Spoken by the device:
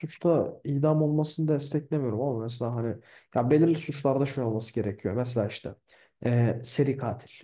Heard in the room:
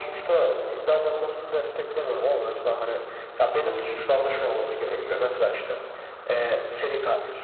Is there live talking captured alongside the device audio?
No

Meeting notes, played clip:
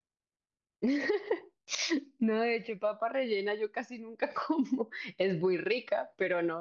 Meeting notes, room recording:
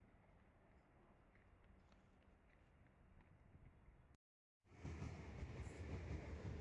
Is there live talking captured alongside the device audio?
No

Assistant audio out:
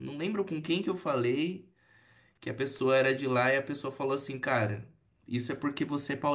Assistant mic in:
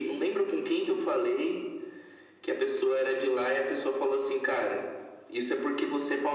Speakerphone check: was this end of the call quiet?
Yes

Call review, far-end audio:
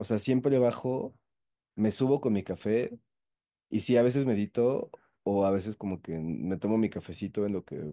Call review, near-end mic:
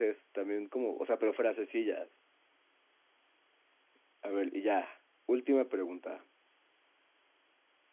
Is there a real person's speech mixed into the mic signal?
Yes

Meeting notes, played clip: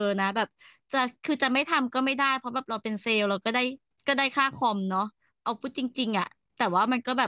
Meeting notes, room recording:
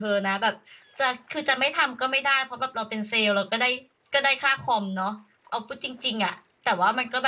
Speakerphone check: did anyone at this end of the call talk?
No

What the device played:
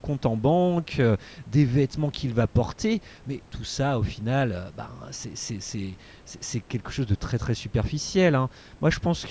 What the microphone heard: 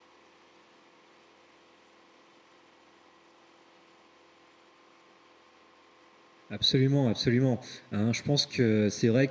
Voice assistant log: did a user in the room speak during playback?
Yes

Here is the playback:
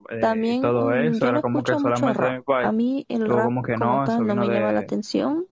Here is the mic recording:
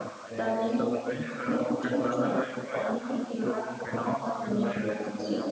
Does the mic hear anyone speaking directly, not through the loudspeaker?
No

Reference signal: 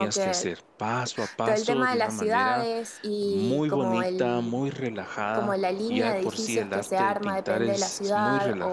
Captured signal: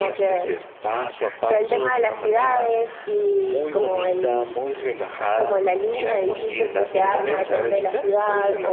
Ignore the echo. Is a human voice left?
Yes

